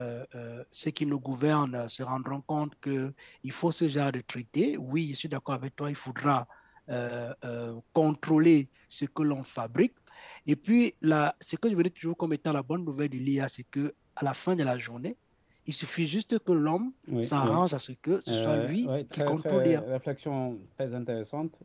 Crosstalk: present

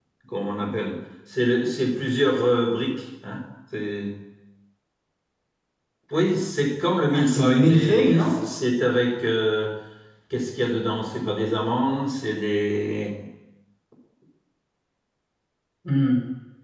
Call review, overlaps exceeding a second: present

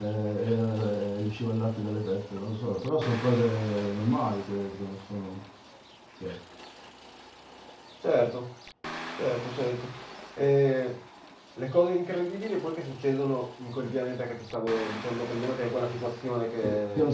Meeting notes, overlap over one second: none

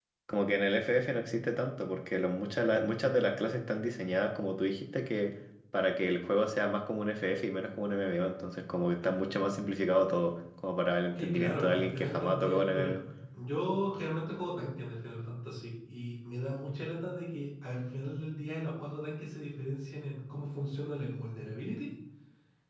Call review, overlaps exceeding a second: present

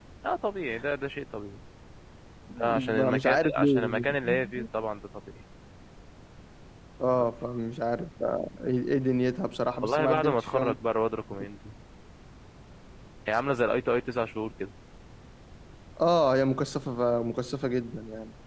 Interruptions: present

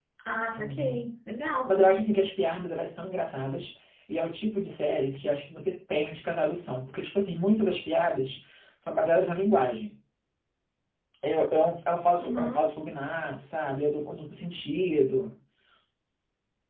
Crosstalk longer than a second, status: none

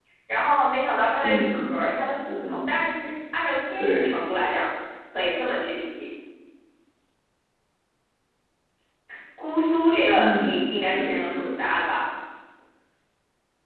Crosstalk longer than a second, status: present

